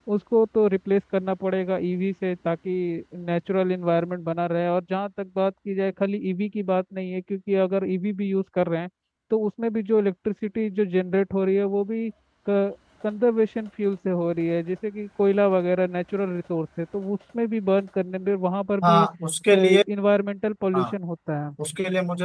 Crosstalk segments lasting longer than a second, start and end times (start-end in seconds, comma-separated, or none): none